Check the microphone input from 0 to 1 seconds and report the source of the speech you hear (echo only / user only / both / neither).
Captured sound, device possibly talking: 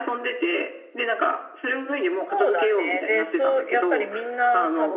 echo only